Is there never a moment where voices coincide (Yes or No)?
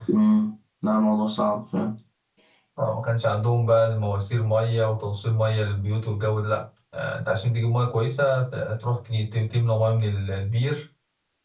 Yes